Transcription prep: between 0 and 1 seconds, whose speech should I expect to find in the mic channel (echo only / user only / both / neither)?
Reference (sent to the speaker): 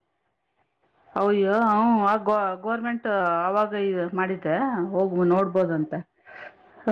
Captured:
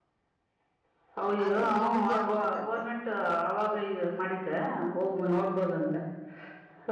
neither